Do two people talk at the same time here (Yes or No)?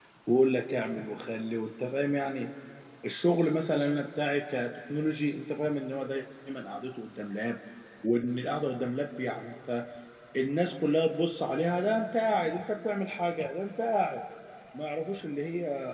No